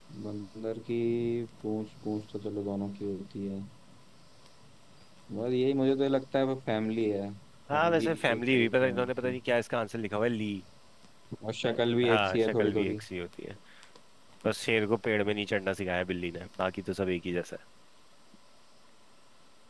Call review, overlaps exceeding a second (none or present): present